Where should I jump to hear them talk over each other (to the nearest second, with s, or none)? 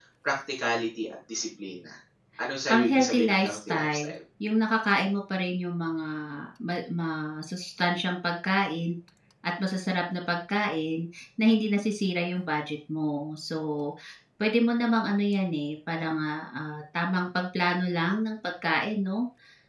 3 s